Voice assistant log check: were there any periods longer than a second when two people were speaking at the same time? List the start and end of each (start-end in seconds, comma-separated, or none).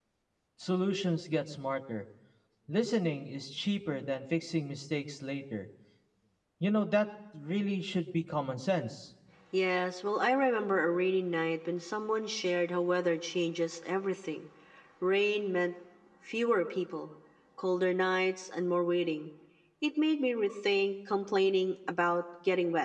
none